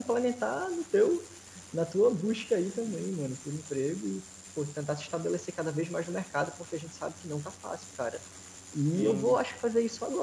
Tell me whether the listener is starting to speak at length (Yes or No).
No